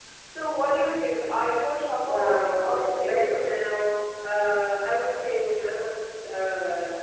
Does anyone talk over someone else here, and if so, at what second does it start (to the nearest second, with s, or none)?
2 s